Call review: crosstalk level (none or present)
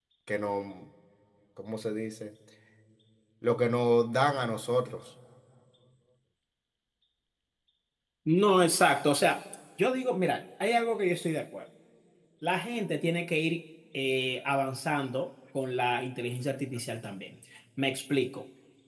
none